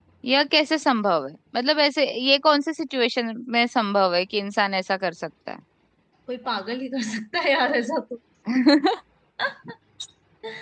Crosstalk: none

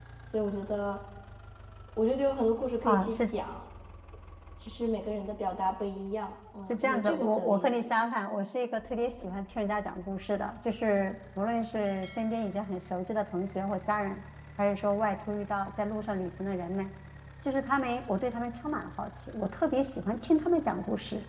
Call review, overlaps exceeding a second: present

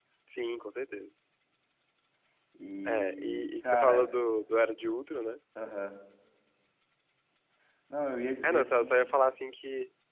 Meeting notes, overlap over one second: present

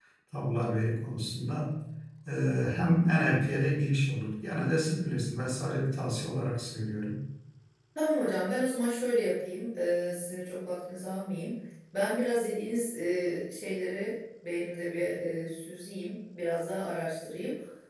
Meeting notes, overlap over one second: none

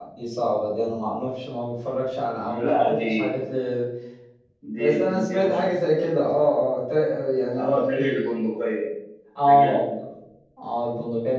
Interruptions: present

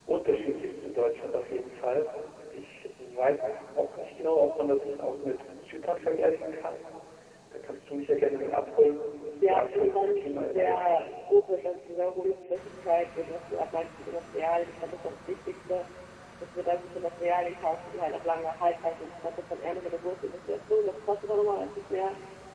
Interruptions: present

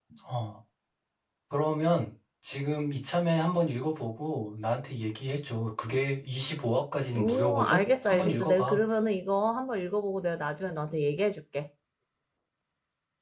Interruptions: present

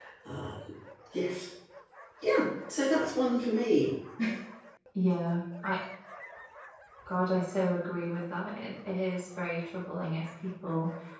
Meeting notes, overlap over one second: none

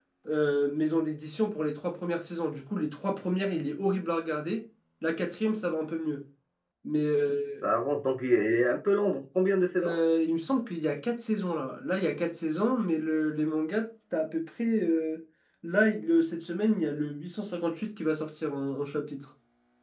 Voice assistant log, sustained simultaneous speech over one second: none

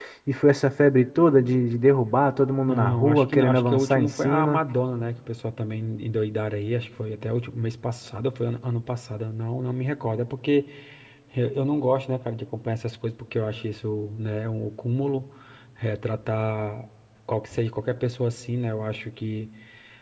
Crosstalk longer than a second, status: present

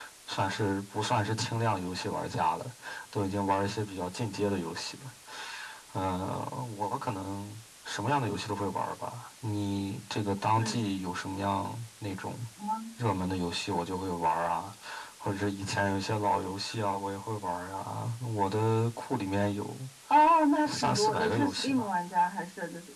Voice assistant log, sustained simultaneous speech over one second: present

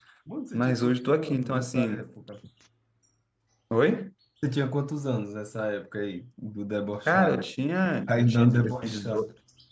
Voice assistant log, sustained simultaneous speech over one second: present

